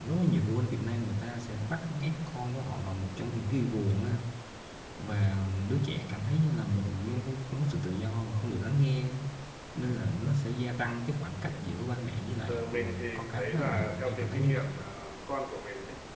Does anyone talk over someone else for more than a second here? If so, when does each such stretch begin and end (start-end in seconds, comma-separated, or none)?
12.5-14.8